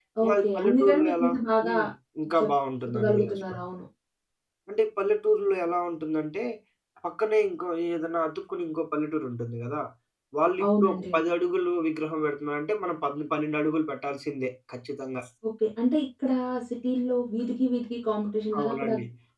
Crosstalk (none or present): present